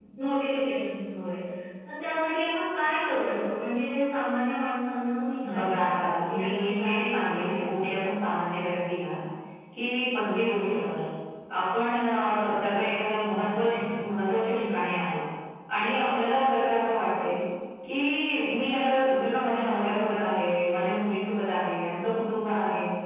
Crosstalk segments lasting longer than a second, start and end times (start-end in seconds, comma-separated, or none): 5.6-7.8